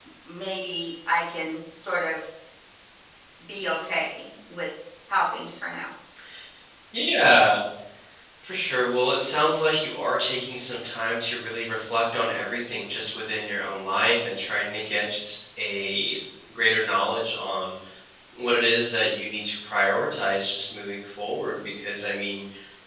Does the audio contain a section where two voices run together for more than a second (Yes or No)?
No